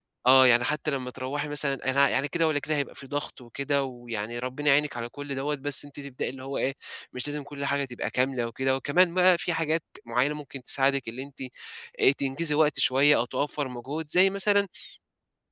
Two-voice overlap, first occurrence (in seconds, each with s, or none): none